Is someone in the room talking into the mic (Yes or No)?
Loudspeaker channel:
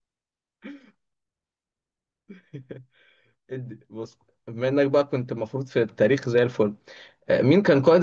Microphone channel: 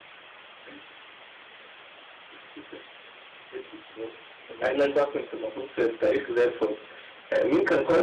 Yes